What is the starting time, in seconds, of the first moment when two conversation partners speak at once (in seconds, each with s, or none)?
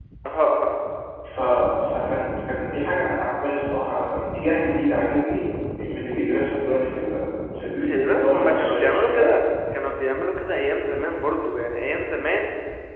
7.8 s